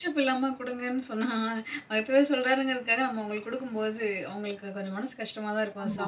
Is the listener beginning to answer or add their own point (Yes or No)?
Yes